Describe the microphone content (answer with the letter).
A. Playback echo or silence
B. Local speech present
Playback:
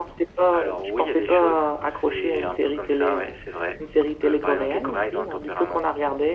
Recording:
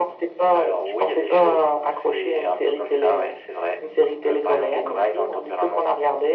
A